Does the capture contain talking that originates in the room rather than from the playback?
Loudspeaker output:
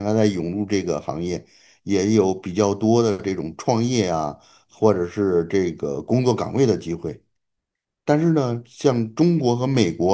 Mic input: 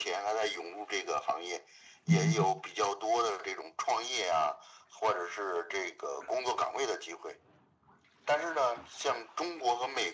Yes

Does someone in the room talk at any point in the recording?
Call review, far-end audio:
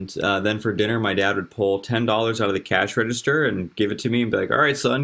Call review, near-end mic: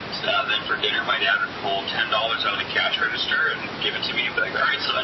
No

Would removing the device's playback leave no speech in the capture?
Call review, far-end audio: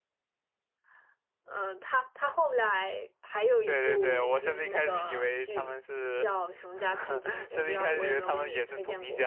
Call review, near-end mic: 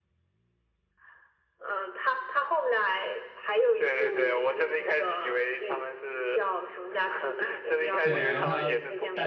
No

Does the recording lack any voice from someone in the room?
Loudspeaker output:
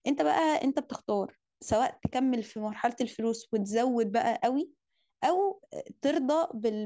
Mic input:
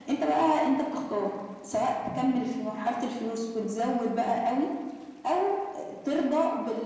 Yes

